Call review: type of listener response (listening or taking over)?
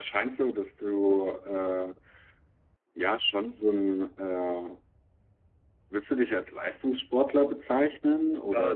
taking over